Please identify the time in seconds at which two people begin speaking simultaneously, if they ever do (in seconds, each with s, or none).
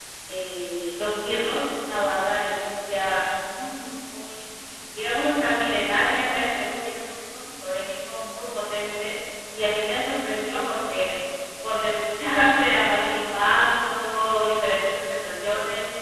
none